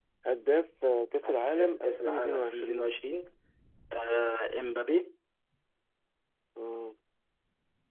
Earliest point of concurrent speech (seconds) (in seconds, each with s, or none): 1.3 s